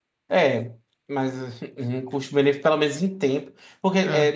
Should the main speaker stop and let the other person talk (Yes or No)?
No